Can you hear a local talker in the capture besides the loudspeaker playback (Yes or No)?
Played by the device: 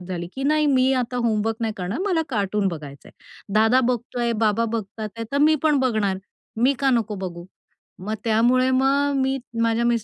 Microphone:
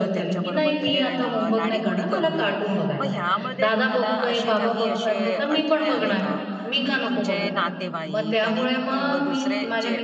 Yes